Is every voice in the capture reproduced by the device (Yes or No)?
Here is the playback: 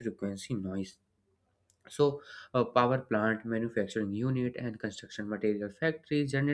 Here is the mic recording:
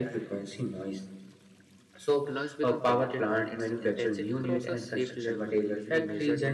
No